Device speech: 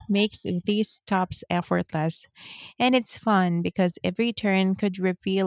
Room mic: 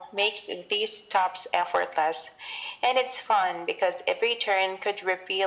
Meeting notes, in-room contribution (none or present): none